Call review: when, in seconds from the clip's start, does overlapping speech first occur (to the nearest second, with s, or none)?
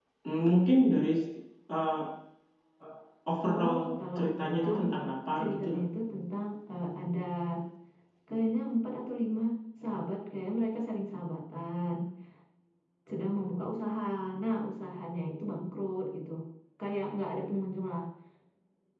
3 s